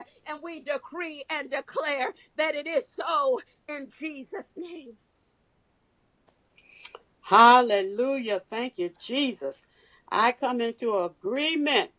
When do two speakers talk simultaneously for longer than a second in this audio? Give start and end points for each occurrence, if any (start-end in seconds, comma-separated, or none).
none